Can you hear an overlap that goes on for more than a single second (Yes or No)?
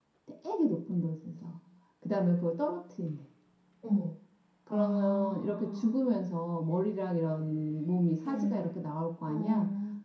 Yes